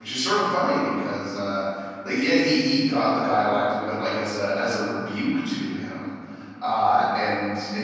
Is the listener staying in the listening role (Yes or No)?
Yes